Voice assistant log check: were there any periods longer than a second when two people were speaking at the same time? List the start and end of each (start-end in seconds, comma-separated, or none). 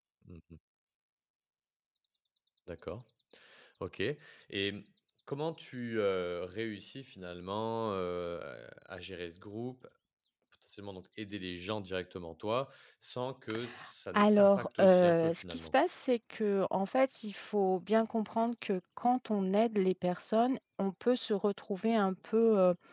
14.1-15.7